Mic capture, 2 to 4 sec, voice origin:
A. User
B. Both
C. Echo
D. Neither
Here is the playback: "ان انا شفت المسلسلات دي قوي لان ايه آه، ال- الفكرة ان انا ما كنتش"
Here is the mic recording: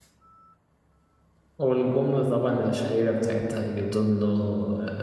A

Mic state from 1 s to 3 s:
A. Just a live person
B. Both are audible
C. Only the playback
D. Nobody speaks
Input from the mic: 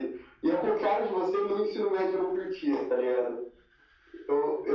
C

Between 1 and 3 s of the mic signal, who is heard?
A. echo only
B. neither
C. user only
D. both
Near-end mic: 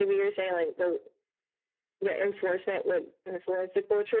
A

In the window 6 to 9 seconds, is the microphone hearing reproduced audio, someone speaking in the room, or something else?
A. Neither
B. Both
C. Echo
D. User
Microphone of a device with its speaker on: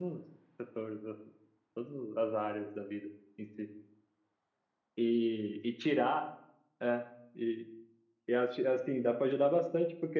D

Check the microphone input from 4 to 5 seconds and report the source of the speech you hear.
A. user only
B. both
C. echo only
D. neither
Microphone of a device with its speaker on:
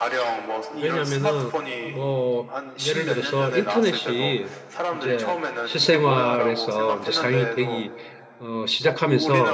B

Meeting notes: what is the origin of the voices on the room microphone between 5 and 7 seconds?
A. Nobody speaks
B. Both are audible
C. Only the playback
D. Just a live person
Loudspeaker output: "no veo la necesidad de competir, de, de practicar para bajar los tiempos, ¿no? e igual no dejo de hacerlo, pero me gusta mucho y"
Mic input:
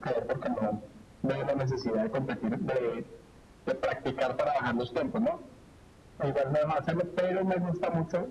C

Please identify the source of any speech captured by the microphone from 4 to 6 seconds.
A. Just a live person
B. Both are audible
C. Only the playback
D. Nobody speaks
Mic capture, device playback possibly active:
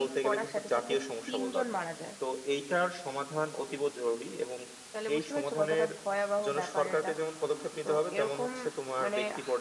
B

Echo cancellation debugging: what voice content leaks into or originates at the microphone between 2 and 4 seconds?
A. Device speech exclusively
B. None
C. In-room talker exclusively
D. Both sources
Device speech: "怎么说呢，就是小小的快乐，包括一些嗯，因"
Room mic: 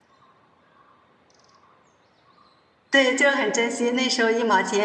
C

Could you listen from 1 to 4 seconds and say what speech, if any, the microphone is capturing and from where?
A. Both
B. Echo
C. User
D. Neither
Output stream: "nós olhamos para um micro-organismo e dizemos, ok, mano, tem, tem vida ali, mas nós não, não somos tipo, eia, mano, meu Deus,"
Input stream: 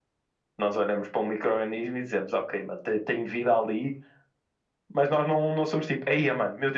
B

